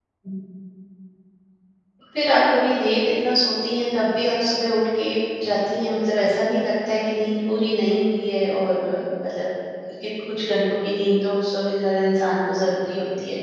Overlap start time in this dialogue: none

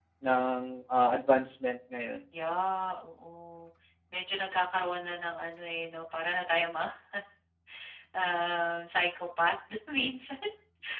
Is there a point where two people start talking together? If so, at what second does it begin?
none

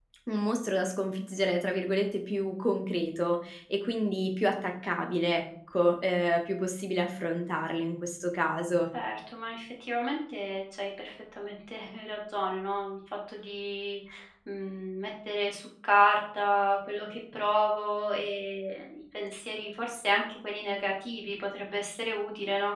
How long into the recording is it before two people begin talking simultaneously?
none

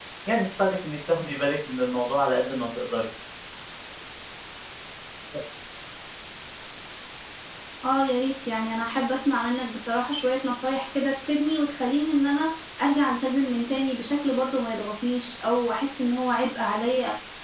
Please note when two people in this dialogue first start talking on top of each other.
none

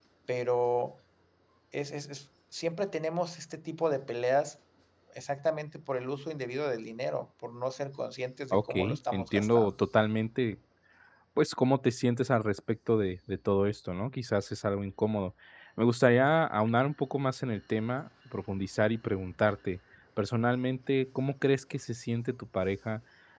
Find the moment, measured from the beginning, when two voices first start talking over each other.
8.5 s

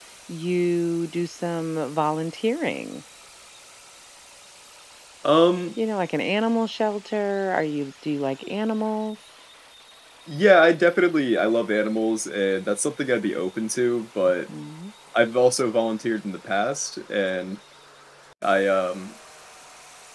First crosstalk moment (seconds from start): none

